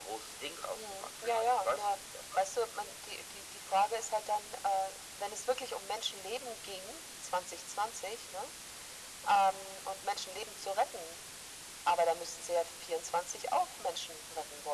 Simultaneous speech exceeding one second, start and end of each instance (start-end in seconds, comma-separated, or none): 0.7-2.0